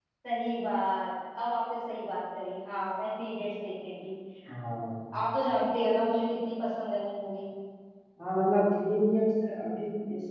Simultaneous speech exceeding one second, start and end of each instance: none

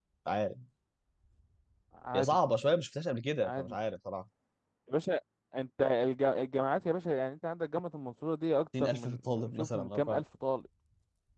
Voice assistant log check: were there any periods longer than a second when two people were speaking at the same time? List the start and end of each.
8.8-10.2

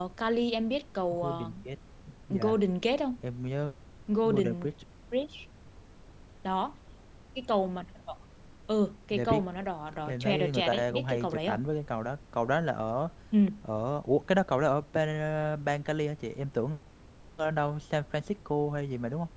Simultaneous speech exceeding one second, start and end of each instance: 10.1-11.6

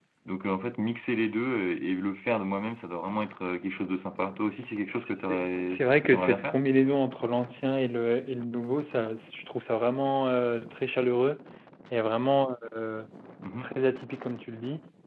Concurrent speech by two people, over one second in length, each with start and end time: 4.9-6.6

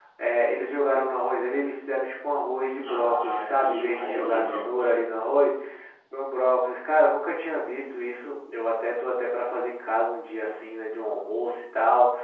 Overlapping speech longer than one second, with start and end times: 2.8-4.9

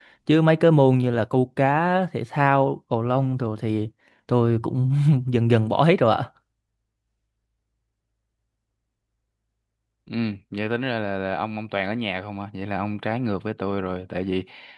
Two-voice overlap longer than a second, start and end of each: none

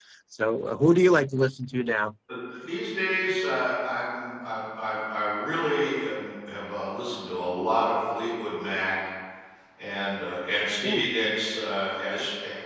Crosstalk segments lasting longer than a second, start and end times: none

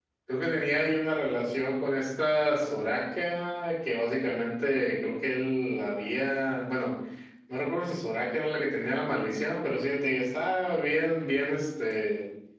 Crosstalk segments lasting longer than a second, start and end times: none

